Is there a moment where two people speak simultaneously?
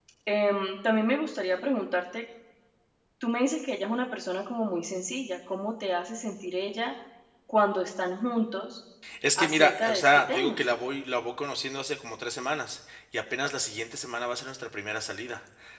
Yes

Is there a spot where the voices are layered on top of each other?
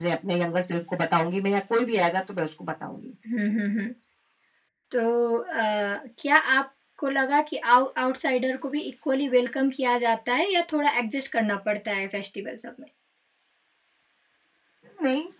No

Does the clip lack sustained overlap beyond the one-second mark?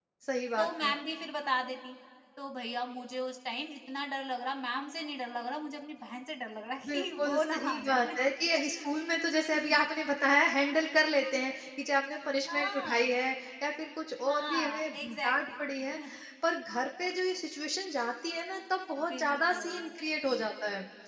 No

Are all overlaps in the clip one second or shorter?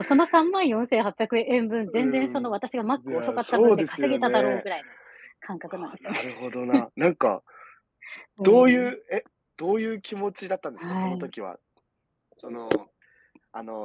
No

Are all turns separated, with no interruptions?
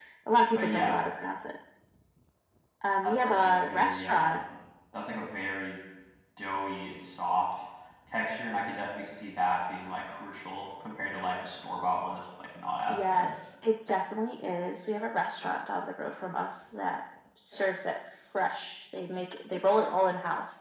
No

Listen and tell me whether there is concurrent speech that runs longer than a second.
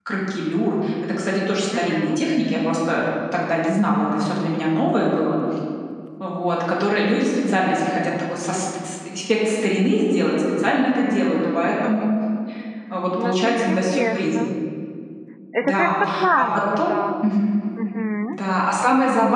Yes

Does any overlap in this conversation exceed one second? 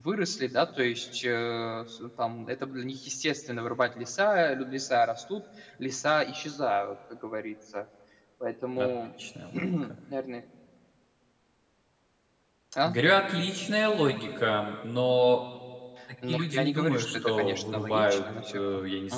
Yes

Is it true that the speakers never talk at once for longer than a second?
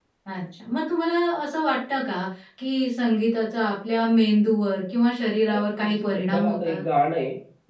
No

